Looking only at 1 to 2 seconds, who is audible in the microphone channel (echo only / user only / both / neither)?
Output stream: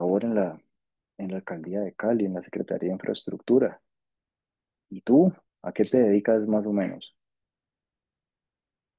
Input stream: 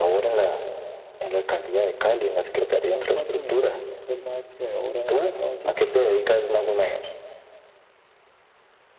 echo only